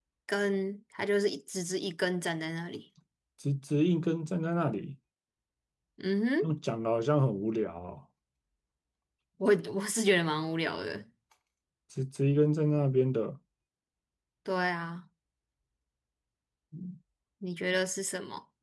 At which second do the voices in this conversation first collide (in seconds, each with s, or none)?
none